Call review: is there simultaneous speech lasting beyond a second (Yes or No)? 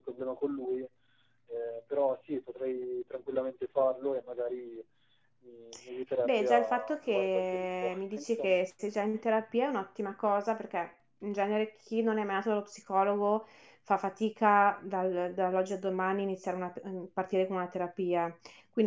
Yes